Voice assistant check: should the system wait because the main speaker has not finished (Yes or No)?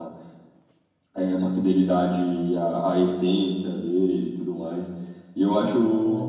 Yes